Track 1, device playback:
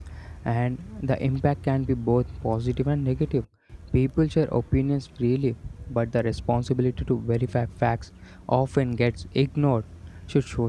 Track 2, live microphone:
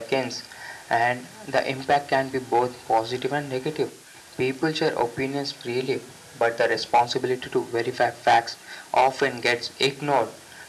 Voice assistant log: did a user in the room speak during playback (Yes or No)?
No